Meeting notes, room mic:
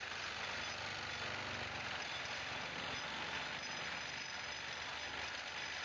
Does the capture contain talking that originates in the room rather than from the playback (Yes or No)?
No